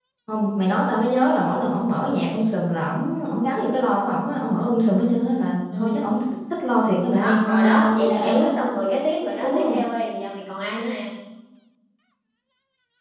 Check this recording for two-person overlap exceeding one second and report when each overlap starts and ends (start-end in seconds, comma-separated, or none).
7.1-8.5